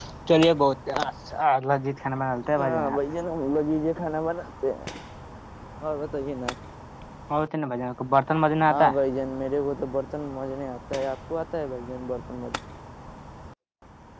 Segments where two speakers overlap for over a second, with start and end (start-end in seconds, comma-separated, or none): none